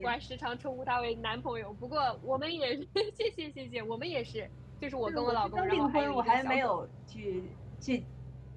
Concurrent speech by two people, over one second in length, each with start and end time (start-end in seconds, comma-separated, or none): 5.1-6.8